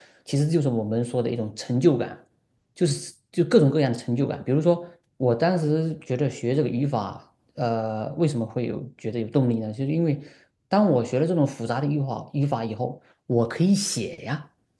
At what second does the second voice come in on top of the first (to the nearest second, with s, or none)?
none